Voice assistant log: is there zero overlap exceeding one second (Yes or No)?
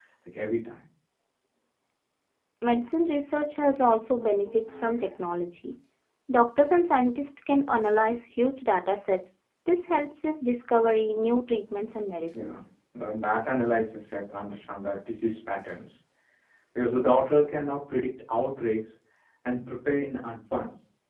Yes